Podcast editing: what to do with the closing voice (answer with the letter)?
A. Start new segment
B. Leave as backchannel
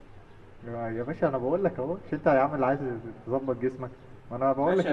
A